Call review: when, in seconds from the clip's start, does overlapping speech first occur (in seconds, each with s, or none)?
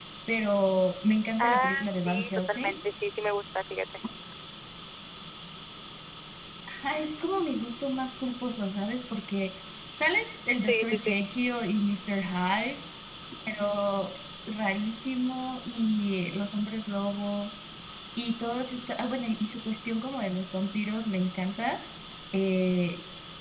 1.4 s